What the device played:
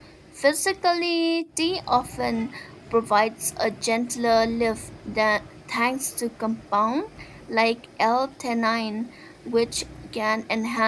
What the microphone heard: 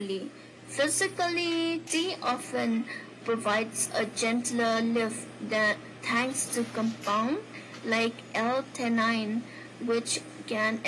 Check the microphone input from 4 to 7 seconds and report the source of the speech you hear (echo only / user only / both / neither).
echo only